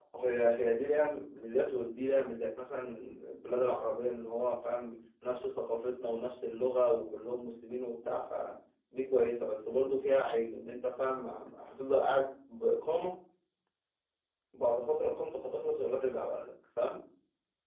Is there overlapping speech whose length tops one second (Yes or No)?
No